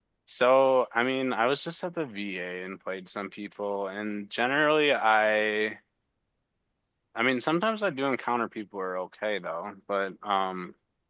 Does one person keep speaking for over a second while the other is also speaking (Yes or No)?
No